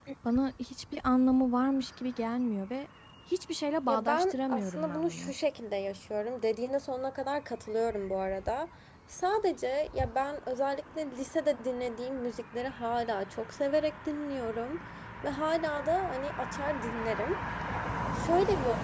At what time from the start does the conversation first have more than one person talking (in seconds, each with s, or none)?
3.9 s